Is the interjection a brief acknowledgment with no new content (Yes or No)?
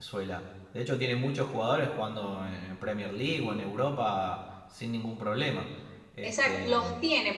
No